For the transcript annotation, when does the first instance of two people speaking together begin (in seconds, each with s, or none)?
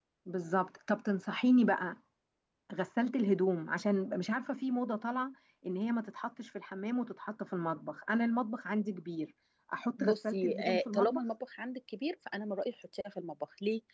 10.0 s